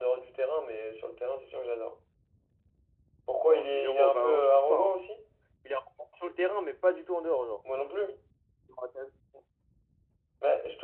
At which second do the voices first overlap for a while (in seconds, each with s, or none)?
3.4 s